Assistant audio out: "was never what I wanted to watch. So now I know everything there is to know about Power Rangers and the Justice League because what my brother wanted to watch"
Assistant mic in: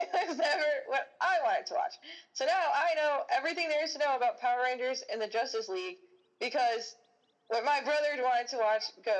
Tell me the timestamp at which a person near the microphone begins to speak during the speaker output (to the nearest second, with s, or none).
none